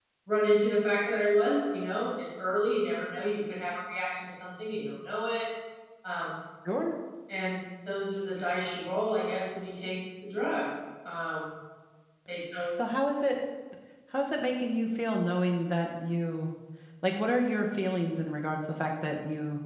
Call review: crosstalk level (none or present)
none